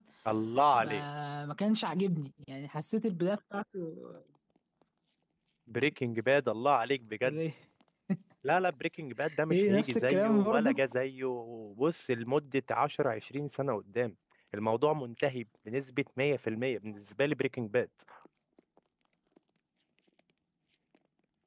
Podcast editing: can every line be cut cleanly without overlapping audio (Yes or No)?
No